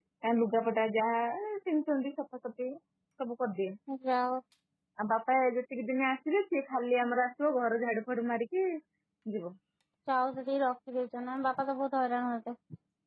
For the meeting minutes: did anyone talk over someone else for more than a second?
No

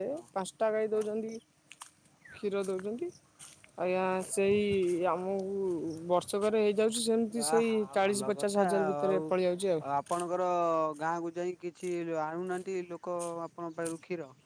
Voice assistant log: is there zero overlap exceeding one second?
No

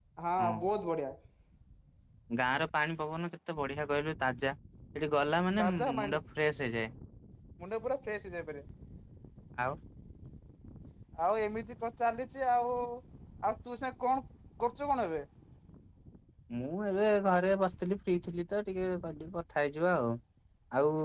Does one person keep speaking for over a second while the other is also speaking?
No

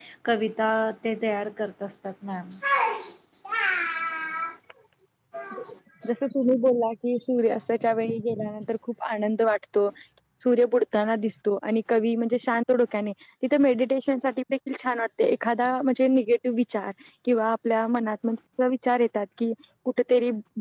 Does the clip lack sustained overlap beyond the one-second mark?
Yes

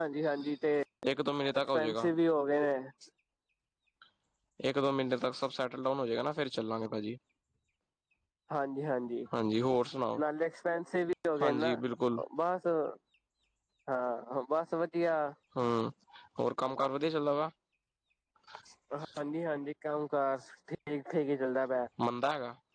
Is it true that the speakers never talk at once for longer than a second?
Yes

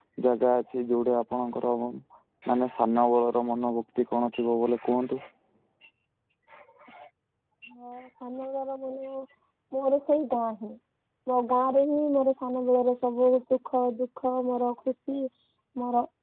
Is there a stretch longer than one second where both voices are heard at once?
No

